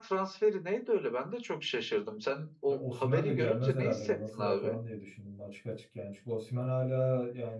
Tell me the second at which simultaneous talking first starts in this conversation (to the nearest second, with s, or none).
3 s